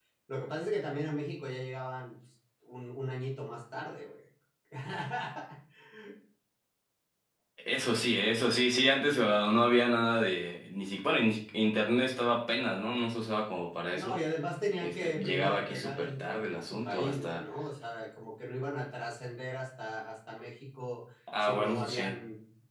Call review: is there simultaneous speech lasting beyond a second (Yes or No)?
Yes